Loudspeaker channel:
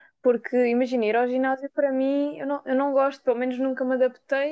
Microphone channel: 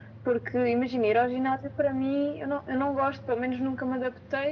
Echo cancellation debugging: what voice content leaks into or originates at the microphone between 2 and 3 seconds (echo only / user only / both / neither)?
echo only